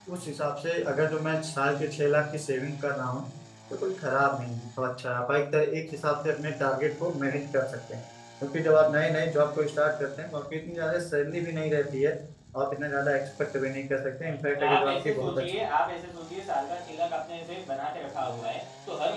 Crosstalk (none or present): present